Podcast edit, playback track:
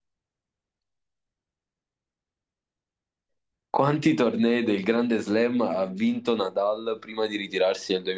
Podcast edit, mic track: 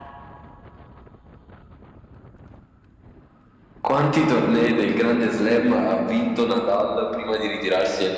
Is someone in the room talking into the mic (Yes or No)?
No